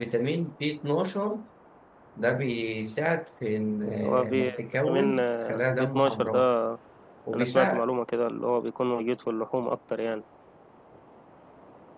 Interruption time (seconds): 4.0 s

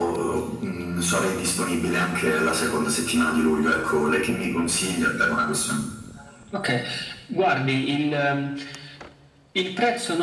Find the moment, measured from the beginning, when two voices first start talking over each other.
none

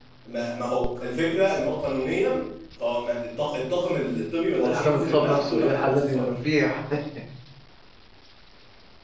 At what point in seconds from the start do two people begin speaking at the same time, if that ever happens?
4.6 s

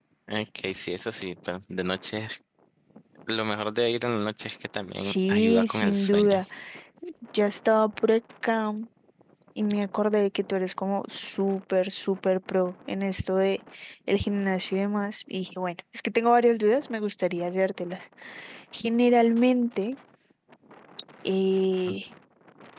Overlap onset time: 5.0 s

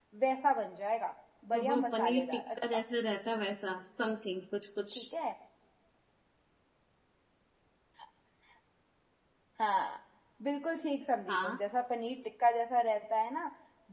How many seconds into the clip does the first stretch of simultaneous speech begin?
1.5 s

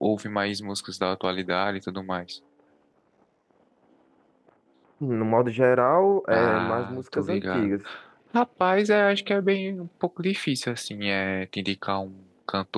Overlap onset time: 6.3 s

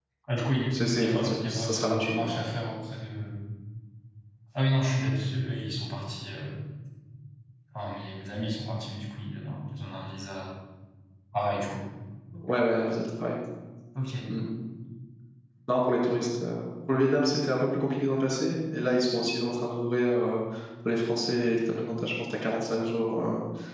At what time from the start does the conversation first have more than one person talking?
0.7 s

